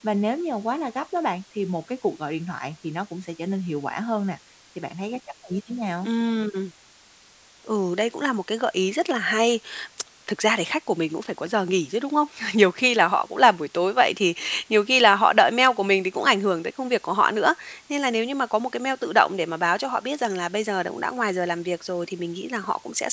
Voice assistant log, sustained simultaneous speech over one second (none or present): none